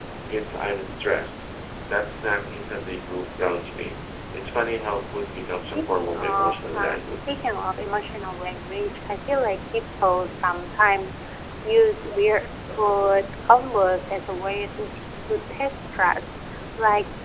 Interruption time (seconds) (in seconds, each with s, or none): 5.7 s